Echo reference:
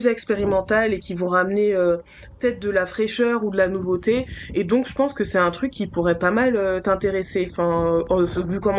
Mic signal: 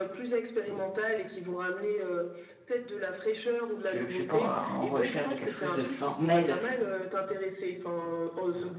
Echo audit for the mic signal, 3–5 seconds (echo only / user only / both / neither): both